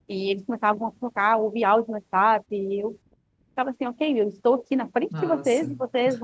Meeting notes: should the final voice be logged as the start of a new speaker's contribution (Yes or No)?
No